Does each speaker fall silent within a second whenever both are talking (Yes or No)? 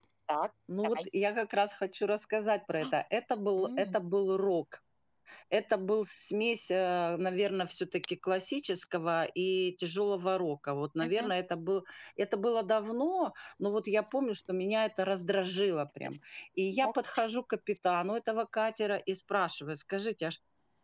Yes